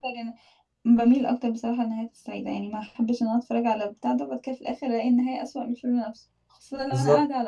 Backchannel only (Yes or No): Yes